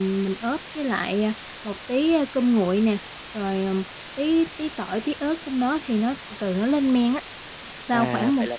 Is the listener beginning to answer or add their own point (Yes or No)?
Yes